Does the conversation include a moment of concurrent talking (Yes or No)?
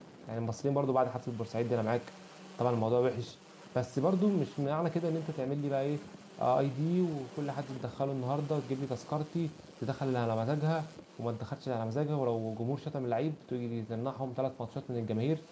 No